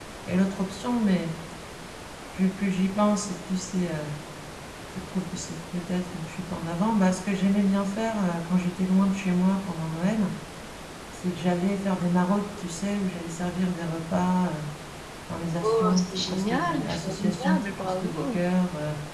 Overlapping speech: Yes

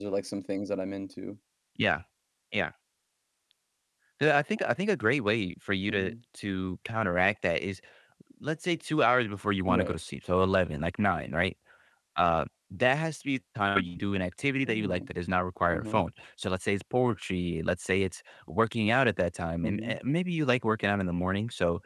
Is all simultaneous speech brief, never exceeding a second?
Yes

